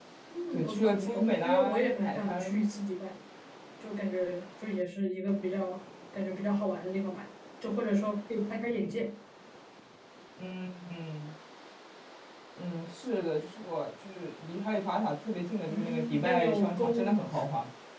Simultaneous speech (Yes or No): Yes